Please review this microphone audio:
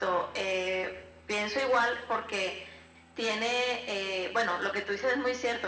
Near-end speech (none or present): none